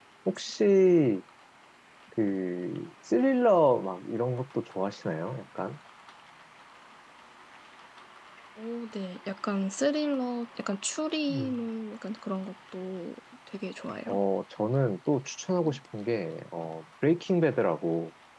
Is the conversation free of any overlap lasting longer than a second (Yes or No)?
Yes